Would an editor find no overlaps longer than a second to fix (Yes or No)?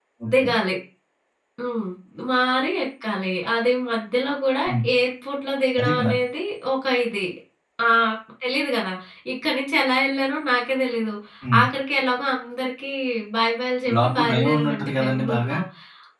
No